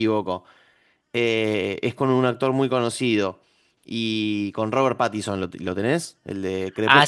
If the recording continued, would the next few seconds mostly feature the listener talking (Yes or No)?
Yes